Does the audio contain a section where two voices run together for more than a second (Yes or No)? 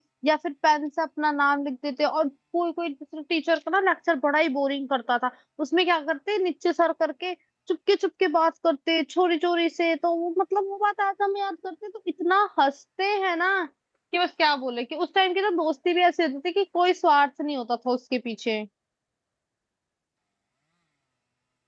No